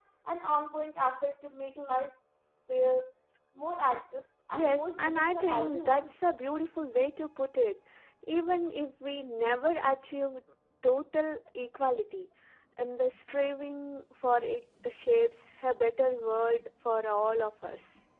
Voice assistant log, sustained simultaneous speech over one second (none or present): present